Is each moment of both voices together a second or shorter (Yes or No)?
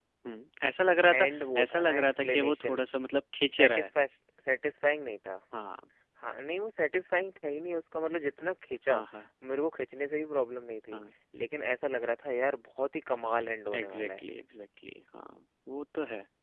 No